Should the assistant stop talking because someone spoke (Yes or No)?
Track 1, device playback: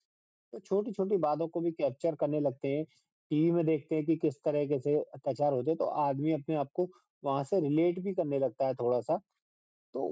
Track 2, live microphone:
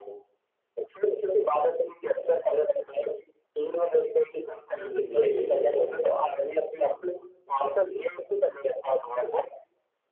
Yes